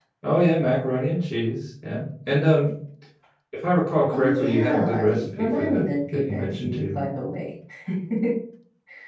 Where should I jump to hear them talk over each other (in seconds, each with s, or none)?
4.1 s